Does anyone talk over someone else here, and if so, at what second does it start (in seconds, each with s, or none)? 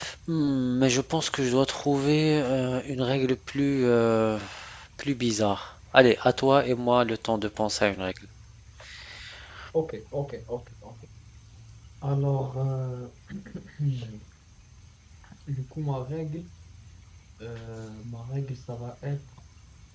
none